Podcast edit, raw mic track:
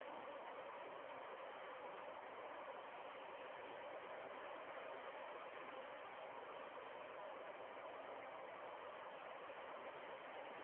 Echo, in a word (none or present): none